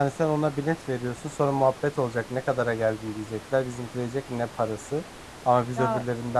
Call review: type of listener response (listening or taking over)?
listening